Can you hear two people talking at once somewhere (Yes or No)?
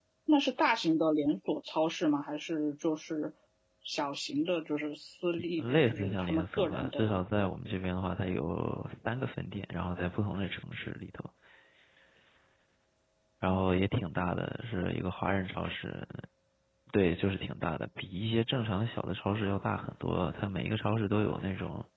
Yes